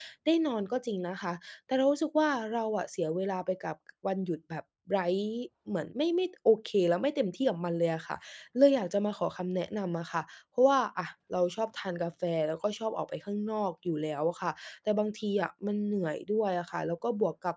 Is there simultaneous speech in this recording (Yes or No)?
No